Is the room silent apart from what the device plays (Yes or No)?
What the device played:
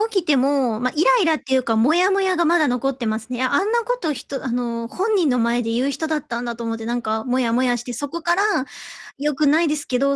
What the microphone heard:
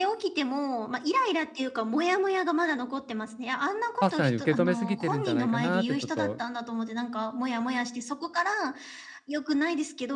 No